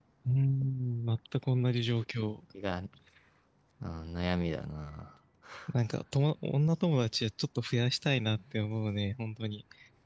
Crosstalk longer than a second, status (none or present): none